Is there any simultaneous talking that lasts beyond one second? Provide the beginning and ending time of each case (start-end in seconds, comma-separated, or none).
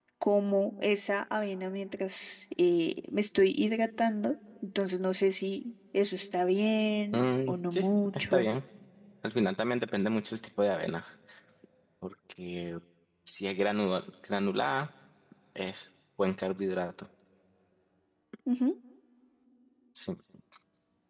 7.1-8.5